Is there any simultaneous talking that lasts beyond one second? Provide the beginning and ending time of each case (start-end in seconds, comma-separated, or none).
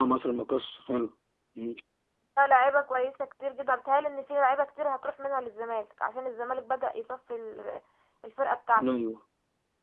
none